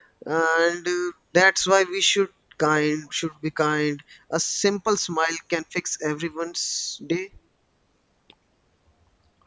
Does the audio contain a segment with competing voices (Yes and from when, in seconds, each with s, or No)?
No